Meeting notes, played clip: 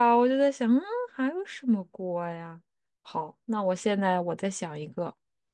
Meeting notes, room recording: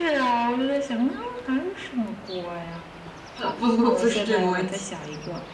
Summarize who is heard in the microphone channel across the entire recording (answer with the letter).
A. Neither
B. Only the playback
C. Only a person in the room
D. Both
D